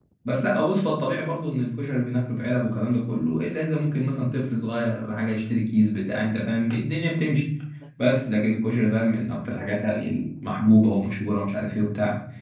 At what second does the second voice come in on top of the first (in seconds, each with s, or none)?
none